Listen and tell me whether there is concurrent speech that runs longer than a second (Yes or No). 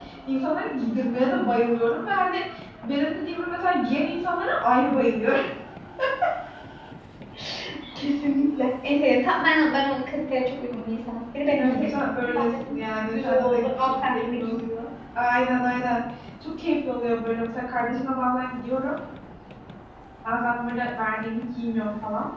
Yes